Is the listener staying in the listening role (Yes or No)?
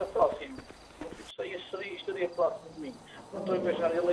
Yes